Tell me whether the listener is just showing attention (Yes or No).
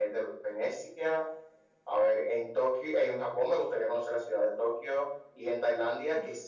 Yes